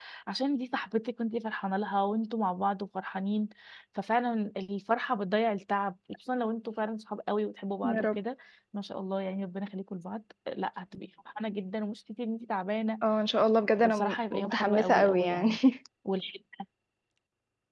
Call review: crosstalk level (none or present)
present